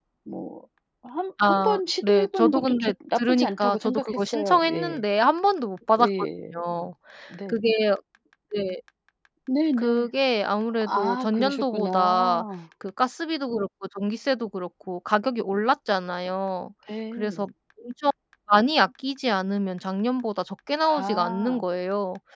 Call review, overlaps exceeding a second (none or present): present